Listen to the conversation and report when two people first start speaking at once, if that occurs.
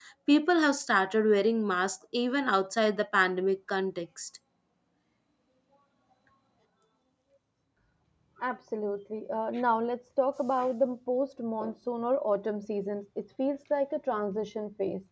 none

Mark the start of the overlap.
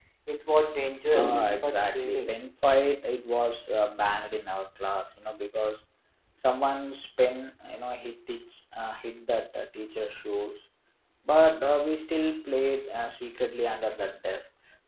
1.1 s

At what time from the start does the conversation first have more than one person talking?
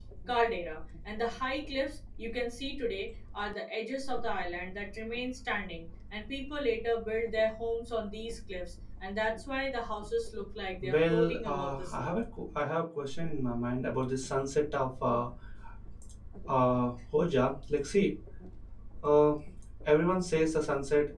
10.8 s

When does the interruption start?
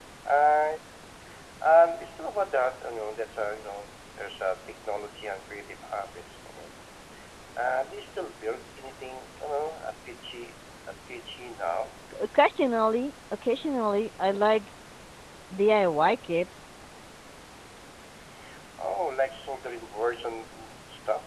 none

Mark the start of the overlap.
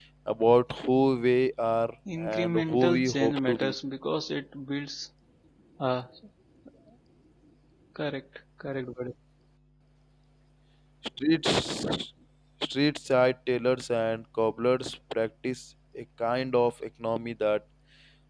2.1 s

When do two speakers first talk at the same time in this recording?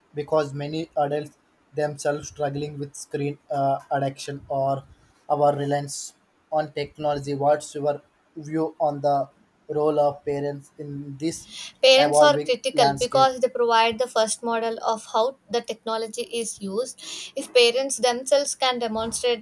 12.0 s

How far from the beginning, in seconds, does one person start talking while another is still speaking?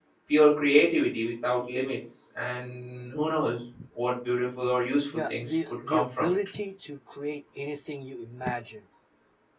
5.1 s

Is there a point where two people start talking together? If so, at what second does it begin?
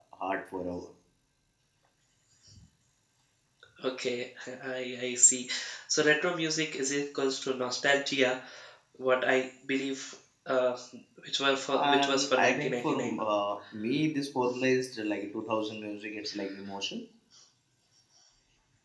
11.9 s

